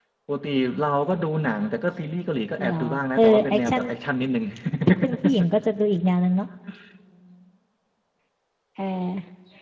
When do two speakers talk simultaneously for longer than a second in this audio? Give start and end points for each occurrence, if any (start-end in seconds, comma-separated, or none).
2.6-3.8